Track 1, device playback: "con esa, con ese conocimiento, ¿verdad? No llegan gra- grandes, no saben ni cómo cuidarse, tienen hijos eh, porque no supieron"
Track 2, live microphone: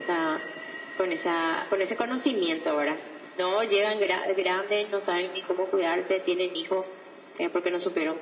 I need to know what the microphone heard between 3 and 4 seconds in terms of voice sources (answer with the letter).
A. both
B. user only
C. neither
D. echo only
D